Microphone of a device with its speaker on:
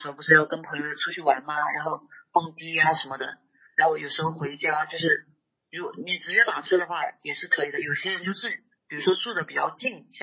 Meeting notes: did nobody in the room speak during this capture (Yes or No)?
Yes